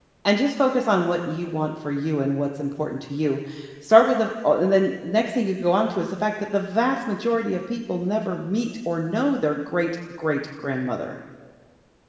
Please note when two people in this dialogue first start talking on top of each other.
none

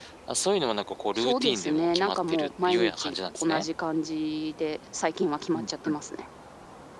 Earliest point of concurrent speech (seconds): 1.1 s

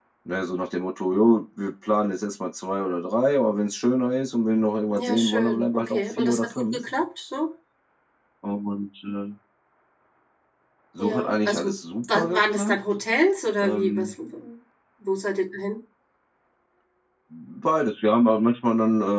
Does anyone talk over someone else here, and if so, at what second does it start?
5.0 s

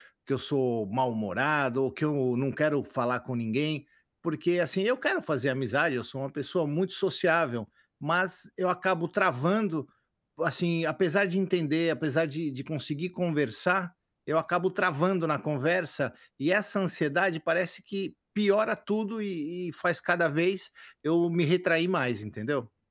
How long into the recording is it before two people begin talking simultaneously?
none

